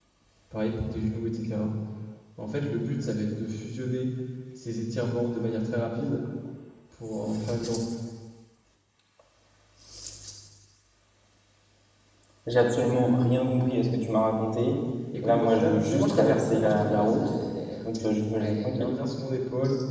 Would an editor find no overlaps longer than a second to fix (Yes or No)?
No